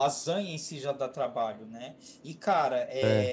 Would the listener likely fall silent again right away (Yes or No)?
Yes